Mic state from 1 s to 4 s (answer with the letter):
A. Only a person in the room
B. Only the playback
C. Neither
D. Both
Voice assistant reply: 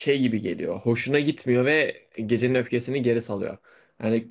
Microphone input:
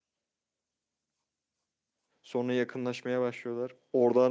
A